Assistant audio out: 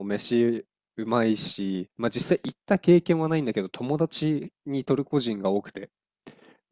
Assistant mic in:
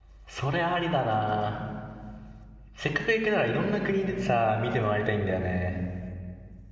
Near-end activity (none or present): present